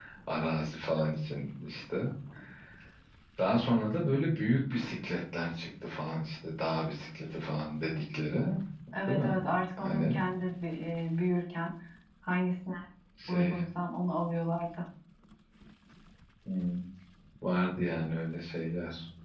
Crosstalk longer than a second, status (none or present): none